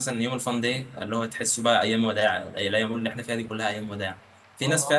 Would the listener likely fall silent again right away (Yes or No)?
Yes